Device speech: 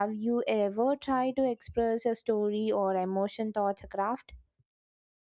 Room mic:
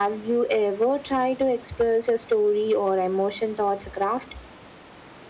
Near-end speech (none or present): none